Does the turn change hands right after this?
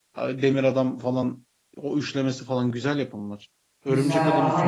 Yes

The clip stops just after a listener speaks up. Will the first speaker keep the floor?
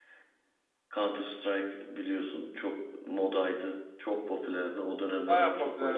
No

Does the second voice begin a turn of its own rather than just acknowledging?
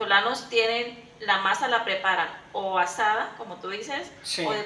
No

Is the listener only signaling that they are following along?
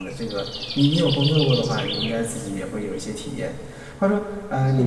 Yes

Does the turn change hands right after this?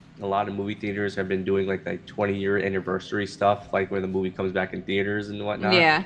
No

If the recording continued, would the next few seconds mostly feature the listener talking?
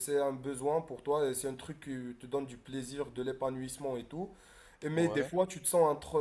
No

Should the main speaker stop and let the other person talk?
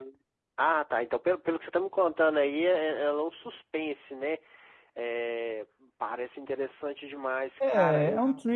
Yes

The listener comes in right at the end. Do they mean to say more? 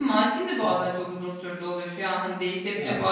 No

